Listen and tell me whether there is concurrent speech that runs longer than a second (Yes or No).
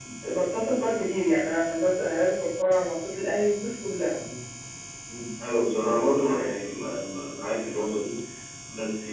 No